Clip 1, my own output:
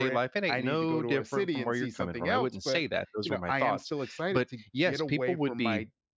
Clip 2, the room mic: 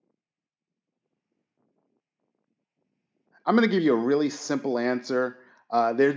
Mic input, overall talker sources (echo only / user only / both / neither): user only